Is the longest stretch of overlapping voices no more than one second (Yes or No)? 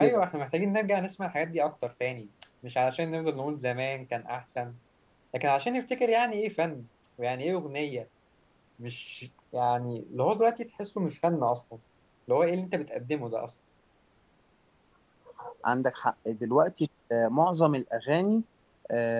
Yes